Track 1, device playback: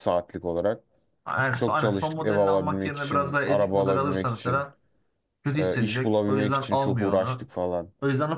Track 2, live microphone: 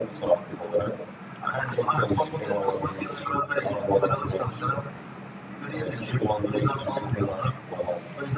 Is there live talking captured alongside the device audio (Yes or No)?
No